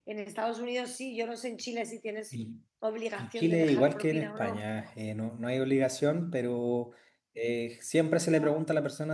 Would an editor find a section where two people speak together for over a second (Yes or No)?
Yes